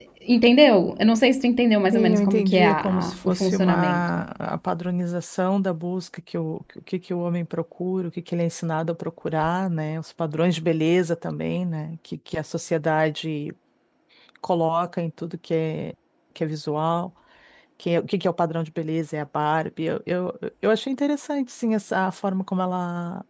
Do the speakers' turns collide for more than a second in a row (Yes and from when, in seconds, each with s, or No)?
Yes, from 1.9 s